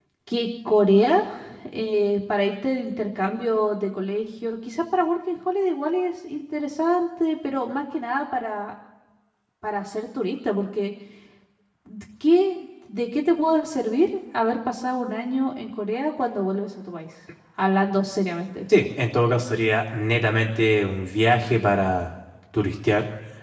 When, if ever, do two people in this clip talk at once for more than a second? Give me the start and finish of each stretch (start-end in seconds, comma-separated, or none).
none